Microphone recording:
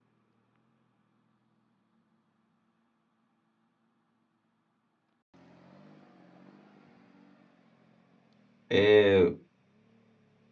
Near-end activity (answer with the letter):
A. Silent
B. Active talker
B